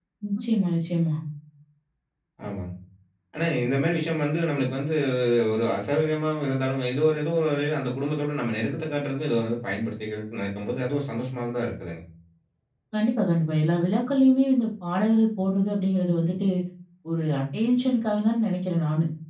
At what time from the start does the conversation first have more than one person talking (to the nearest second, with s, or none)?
none